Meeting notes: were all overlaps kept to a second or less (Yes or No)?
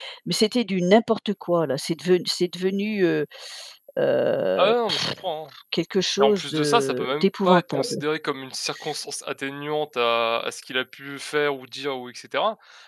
No